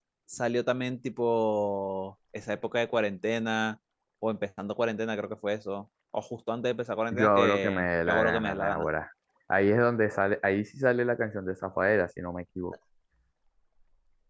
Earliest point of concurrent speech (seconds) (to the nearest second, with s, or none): 7 s